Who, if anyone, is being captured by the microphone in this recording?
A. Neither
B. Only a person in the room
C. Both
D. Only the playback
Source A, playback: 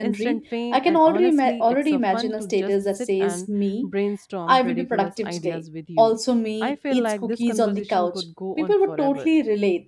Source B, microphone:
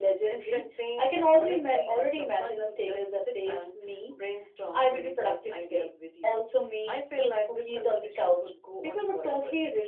D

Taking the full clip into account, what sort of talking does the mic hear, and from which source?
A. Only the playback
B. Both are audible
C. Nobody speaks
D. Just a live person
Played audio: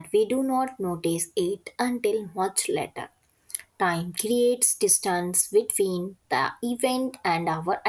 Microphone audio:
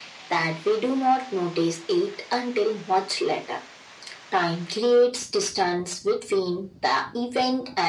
A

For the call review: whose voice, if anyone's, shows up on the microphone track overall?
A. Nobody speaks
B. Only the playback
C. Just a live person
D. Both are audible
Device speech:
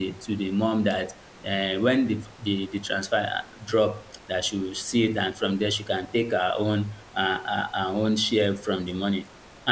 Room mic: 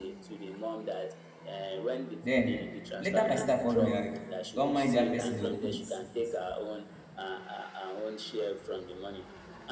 D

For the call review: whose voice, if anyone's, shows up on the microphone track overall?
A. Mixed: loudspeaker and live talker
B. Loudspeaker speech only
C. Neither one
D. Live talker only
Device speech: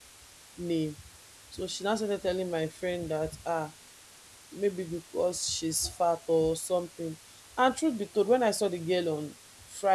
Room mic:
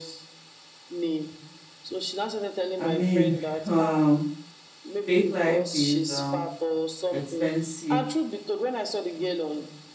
A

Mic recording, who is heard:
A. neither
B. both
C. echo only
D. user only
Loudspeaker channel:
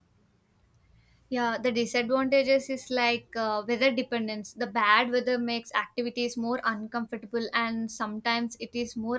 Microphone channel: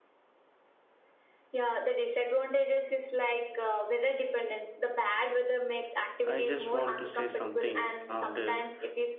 B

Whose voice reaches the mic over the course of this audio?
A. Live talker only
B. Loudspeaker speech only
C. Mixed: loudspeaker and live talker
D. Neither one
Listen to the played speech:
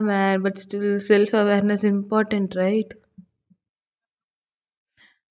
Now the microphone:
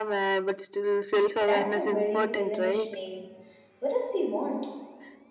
C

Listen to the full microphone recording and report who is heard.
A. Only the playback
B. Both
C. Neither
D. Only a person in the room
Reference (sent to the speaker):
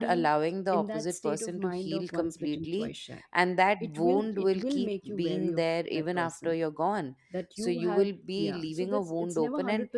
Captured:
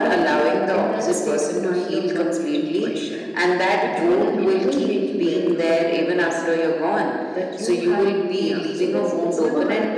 A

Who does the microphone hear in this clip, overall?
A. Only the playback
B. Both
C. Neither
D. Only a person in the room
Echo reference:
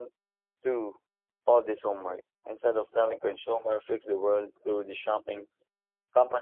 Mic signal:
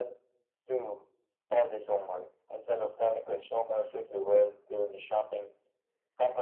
A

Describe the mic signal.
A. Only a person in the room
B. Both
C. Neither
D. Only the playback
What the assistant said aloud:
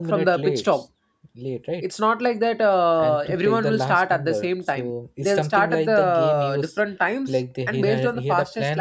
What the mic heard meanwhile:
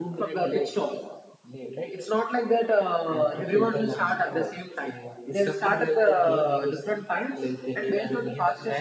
D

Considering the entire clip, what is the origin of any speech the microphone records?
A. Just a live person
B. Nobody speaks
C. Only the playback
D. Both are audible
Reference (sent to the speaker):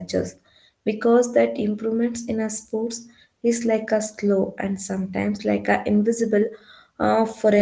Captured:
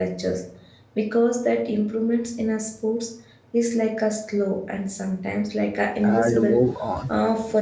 D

